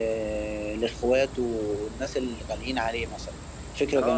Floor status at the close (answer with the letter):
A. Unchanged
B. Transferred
B